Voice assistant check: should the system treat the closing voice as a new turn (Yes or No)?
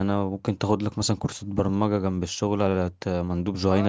Yes